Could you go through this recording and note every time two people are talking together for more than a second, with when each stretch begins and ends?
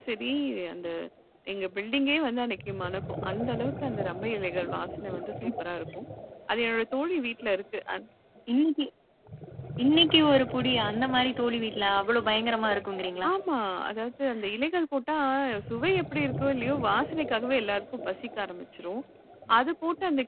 none

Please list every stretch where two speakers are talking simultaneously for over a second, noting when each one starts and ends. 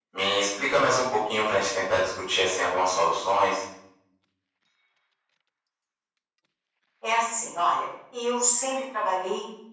none

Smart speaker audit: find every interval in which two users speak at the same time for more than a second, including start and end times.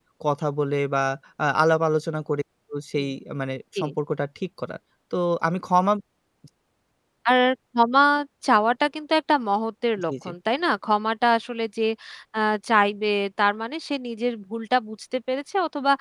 none

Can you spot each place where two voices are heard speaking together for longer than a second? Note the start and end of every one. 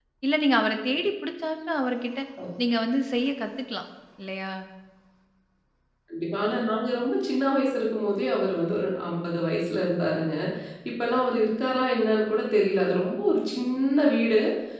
none

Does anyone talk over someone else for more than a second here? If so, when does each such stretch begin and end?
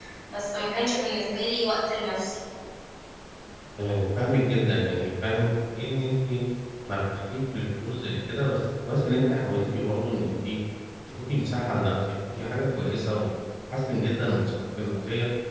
none

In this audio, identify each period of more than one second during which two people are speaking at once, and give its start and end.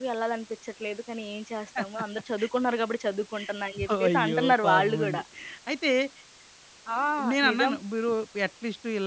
4.0-5.2

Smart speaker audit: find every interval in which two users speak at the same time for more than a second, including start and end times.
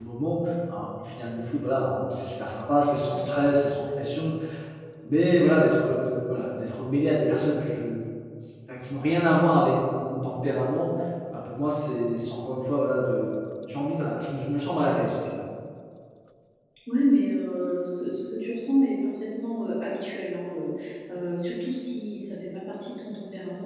none

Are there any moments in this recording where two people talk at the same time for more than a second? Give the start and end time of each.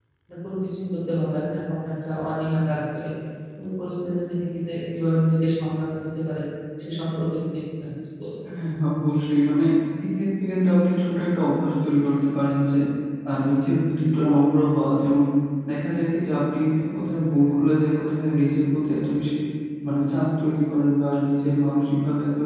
none

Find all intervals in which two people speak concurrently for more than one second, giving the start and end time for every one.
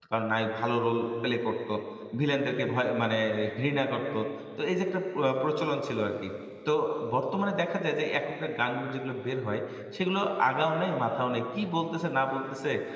none

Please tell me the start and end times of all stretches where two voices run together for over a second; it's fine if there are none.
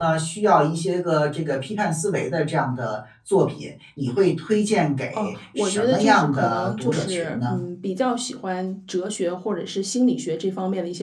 5.1-7.6

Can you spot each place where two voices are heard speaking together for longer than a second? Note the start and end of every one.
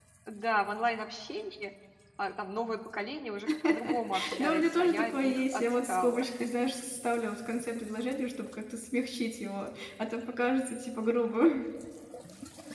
4.4-6.2

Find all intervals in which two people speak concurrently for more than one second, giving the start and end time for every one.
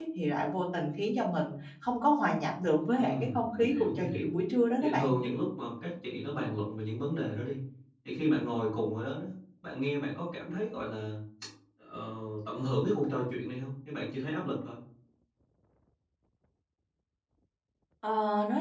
3.0-4.4

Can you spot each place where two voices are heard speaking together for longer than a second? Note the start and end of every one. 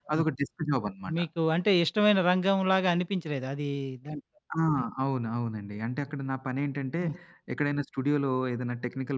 none

